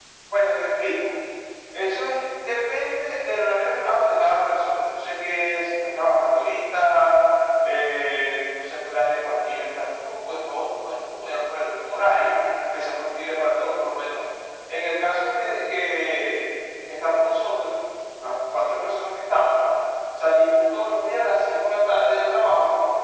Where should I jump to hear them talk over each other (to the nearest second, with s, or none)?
none